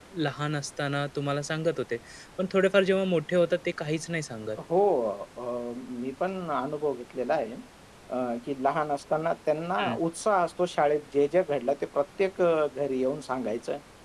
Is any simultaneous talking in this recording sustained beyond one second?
No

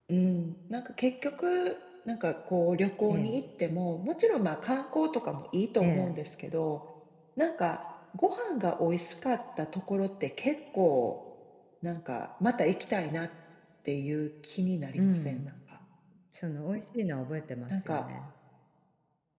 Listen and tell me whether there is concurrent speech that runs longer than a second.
No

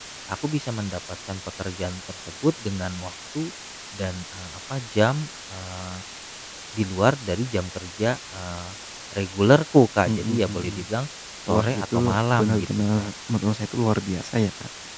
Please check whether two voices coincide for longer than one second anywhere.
Yes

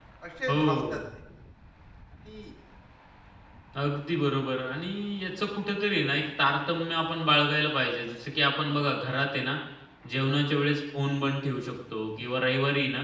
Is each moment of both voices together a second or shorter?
Yes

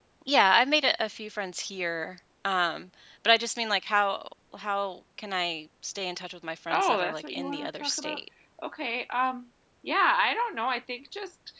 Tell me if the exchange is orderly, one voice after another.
No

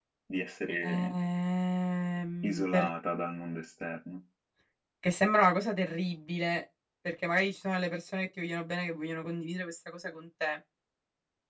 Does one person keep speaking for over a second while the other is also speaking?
No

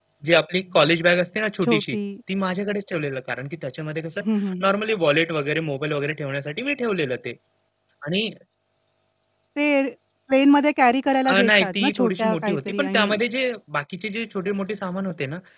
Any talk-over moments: Yes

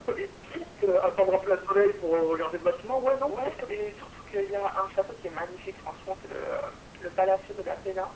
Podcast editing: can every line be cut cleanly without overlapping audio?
Yes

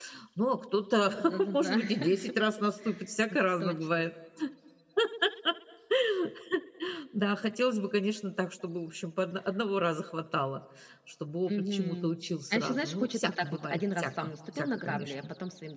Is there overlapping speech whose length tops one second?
Yes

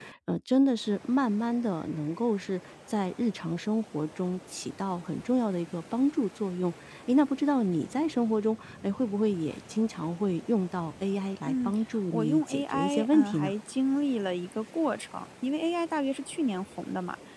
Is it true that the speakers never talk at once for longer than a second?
No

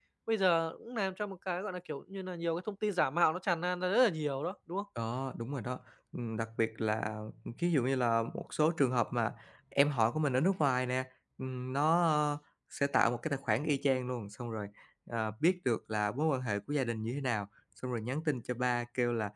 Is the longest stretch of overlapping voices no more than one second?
Yes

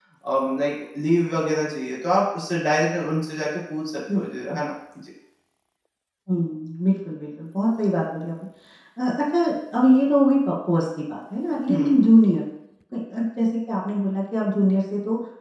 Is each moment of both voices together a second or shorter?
Yes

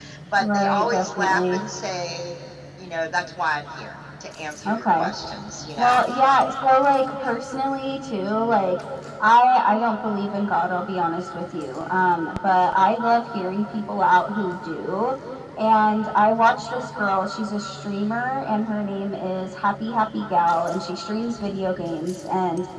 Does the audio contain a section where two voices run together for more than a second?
Yes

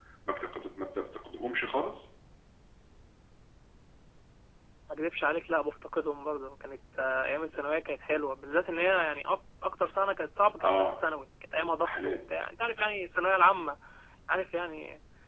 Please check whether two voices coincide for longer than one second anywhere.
No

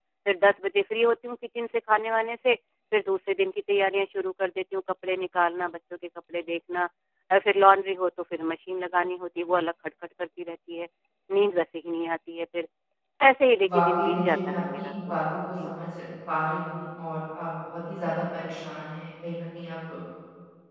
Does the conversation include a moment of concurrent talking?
Yes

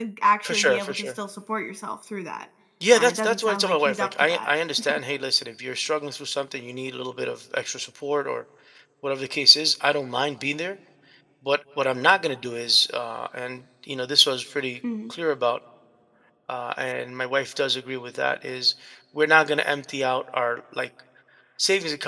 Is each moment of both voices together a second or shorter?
No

